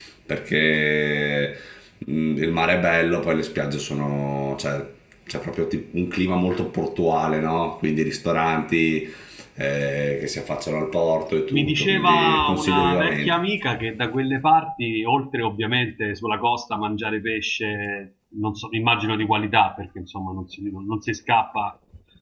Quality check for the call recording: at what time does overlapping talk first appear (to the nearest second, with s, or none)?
12 s